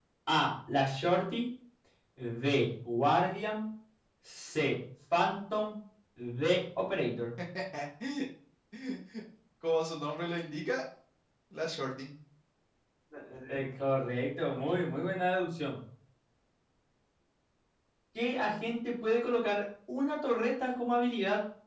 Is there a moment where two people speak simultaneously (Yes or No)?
No